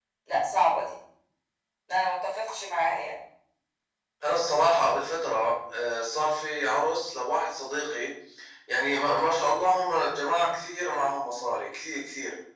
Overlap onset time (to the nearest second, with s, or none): none